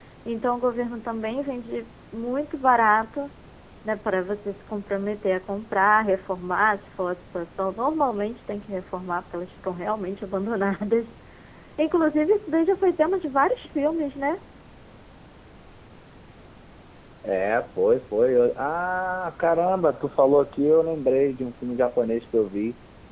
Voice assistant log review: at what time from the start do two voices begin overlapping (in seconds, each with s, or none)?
none